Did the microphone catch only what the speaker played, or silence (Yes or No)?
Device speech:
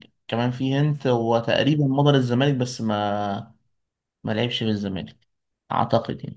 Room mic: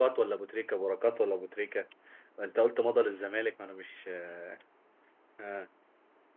No